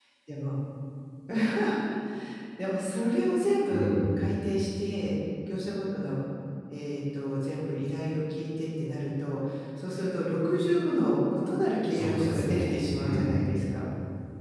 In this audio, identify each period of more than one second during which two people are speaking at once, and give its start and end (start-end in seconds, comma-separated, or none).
11.9-13.3